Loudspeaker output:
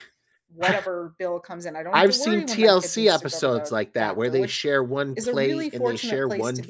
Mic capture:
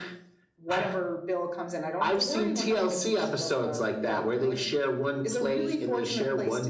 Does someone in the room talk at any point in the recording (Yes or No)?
No